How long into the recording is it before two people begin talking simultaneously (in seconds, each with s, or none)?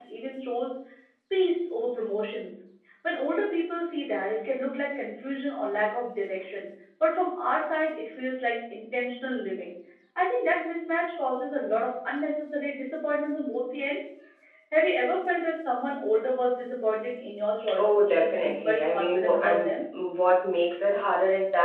17.7 s